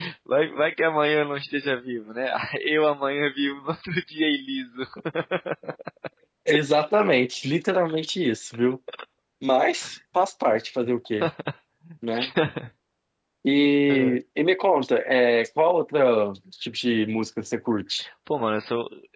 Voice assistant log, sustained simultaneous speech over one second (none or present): none